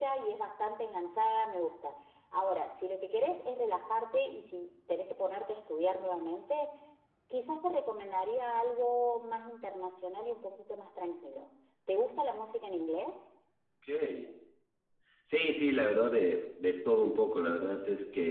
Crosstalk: none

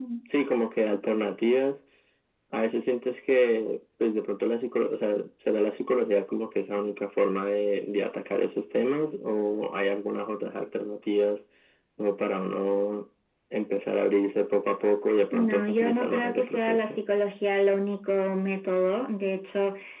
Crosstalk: present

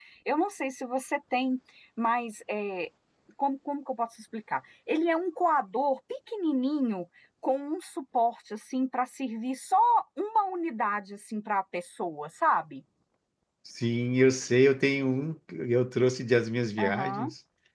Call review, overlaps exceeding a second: none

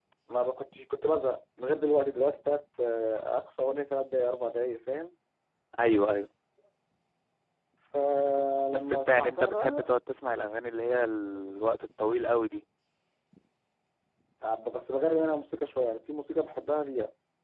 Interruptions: present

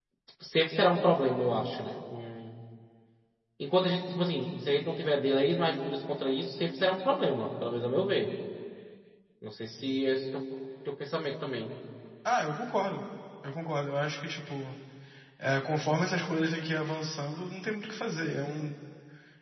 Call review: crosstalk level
none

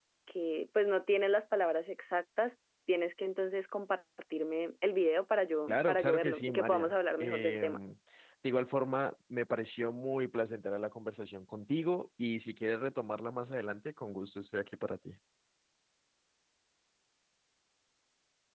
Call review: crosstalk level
present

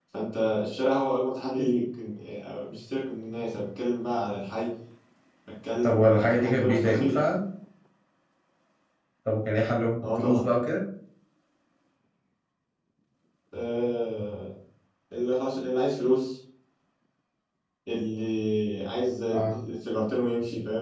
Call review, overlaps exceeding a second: present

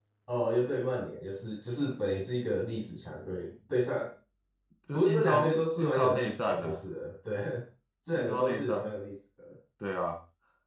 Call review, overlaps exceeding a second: present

